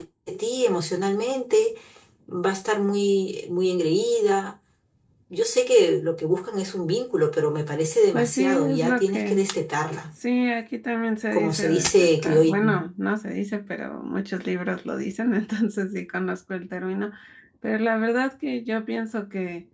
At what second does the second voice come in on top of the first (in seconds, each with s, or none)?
8.1 s